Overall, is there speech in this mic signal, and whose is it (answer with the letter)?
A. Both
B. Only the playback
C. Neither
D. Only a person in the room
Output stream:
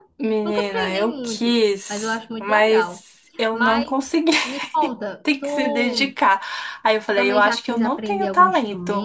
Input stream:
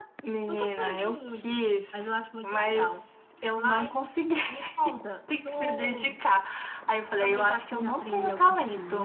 B